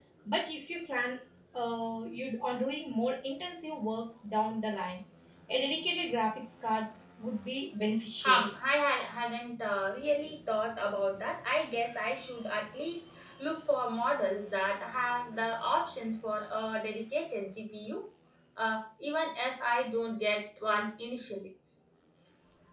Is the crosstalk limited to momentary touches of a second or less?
Yes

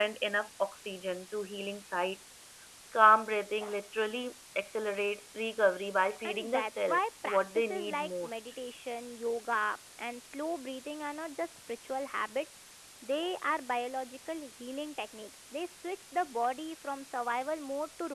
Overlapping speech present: Yes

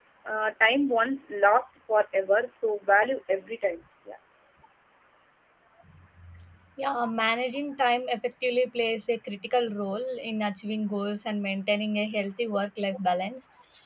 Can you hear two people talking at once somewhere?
No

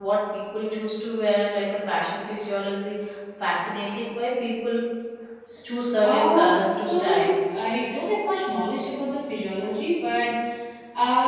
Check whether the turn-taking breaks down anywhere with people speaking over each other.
Yes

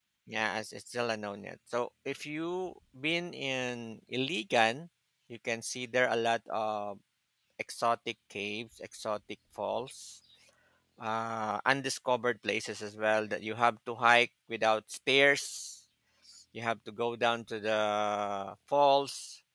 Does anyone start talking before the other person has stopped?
No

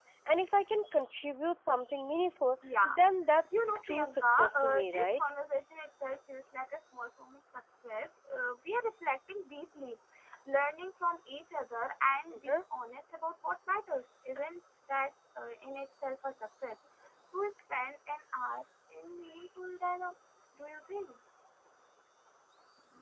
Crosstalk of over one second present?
Yes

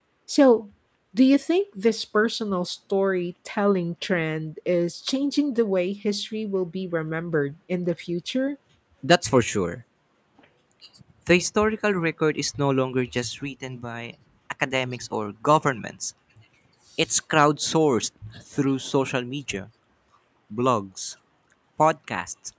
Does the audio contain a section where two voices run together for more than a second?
No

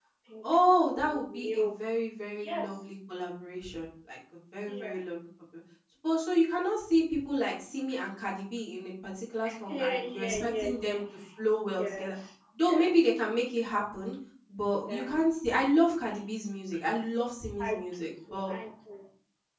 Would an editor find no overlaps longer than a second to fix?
No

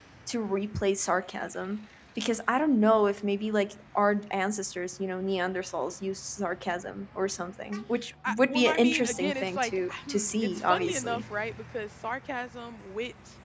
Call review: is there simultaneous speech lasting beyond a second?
Yes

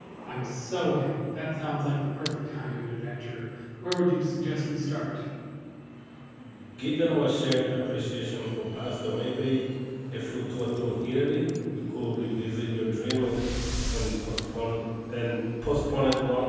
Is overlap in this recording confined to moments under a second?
Yes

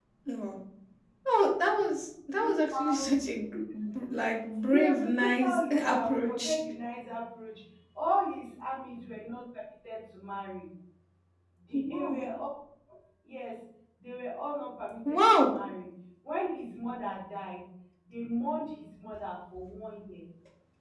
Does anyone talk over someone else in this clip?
Yes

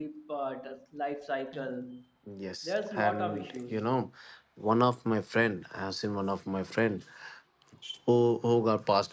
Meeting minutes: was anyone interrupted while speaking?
Yes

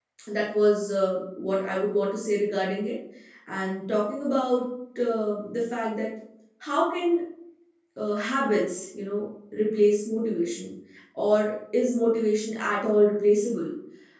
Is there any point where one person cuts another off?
No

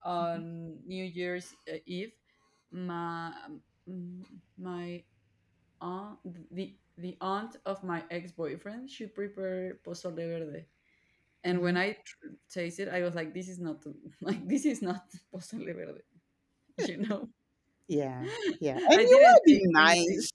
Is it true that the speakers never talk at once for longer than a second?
No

